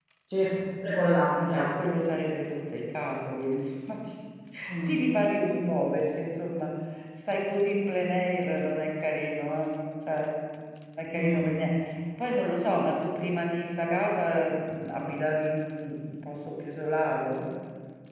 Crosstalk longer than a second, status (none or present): none